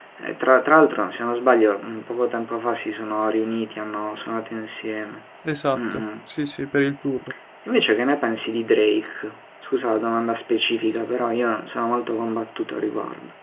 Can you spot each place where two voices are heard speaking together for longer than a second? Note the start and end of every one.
none

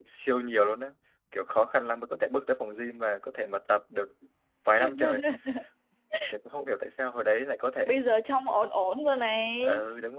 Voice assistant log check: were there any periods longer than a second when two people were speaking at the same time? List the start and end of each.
none

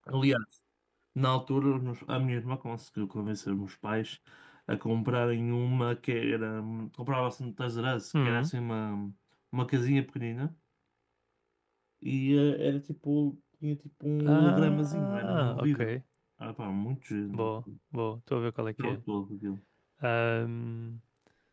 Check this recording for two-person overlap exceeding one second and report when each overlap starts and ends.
14.2-15.9

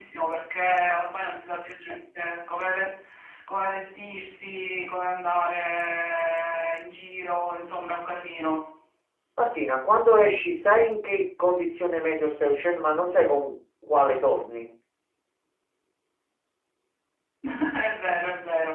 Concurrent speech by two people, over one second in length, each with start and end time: none

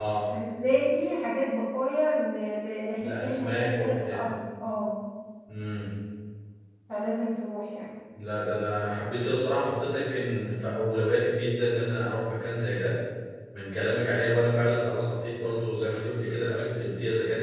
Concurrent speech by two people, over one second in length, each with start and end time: 3.0-4.3

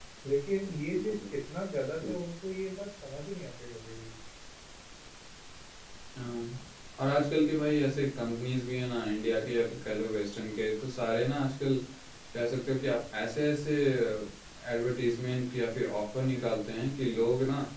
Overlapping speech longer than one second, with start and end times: none

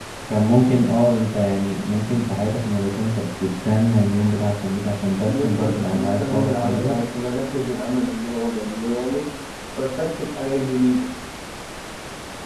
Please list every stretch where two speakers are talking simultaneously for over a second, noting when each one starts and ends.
5.2-7.0

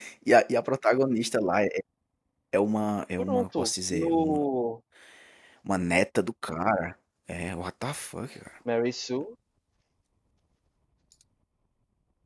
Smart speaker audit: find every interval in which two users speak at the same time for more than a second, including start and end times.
3.2-4.4

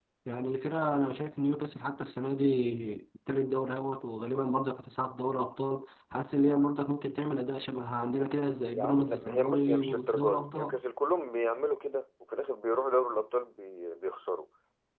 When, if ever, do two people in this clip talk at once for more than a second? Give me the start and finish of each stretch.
8.7-10.8

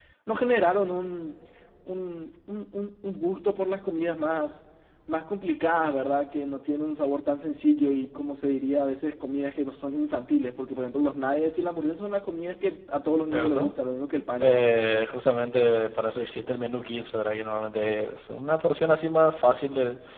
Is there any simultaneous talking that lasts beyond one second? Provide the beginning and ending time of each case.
none

